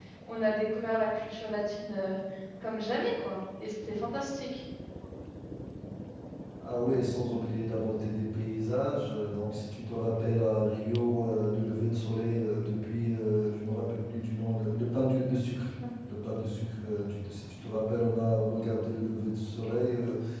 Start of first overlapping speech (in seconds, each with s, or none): none